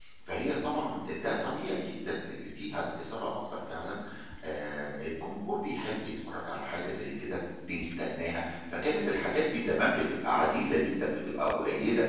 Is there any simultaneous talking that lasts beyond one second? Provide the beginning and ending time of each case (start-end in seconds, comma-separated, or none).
none